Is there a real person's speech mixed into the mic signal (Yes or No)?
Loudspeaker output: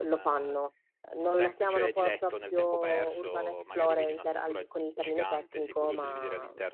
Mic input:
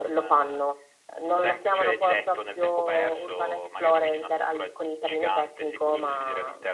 No